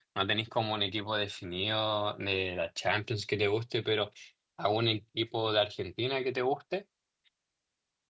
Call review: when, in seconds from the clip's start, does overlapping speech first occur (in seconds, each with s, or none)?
none